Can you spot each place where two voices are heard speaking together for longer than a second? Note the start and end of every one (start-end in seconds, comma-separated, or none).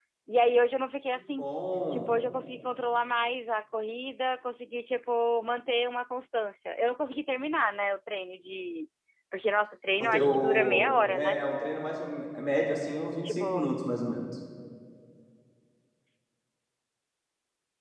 10.0-11.4